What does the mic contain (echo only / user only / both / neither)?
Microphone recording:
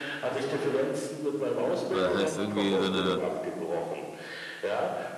both